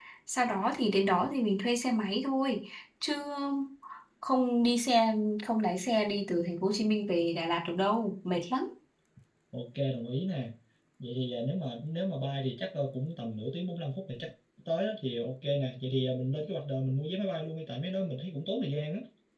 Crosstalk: none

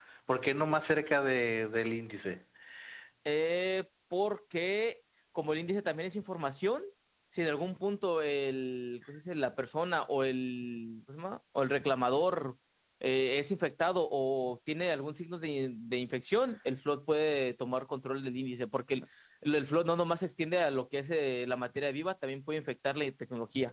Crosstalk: none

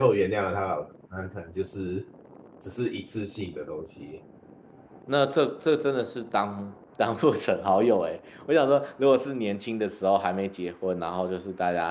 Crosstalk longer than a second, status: none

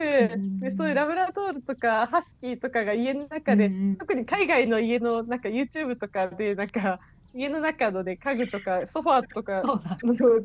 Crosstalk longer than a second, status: none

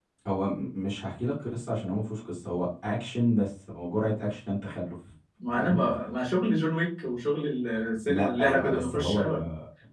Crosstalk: present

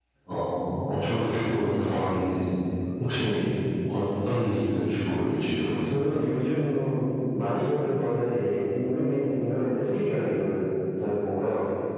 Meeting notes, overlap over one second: none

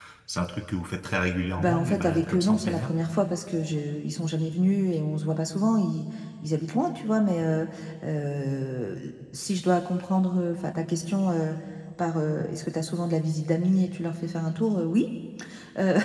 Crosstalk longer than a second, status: present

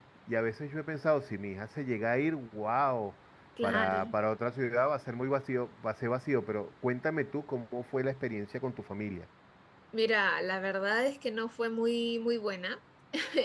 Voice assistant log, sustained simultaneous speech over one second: none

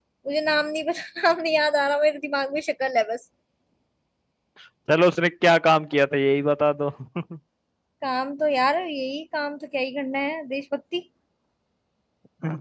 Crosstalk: none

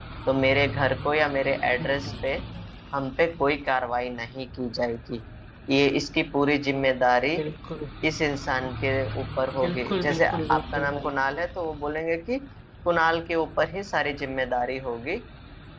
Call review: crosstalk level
present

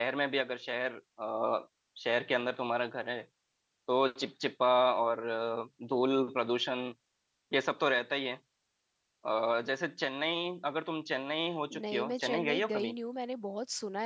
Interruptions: present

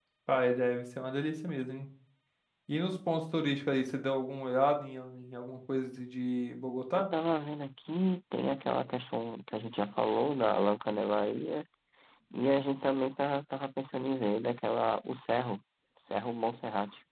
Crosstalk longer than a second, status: none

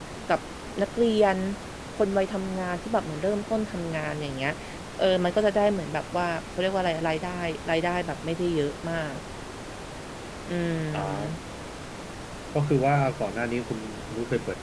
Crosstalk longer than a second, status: none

